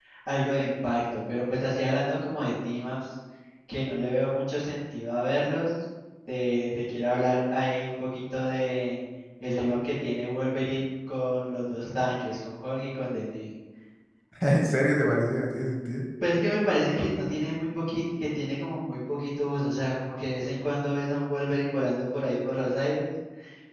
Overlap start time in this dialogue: none

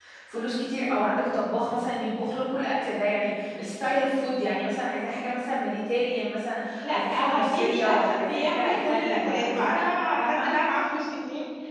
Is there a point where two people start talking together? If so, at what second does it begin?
6.8 s

